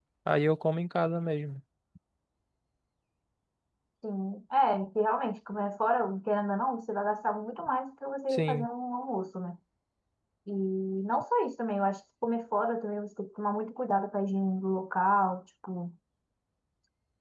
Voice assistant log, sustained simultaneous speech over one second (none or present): none